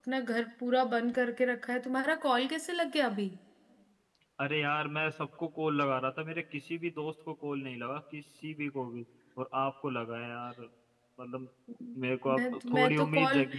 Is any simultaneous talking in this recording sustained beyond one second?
Yes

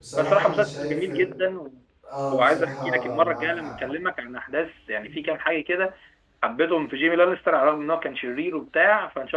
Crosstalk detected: Yes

